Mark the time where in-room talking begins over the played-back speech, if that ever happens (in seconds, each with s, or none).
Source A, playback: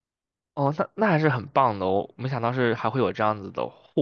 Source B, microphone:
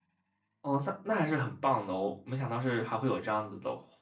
none